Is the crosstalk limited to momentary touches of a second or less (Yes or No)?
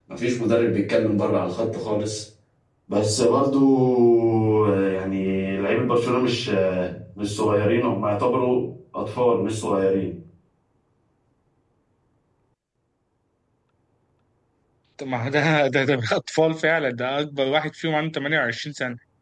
Yes